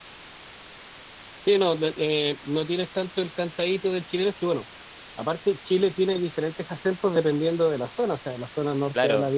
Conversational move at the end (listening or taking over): listening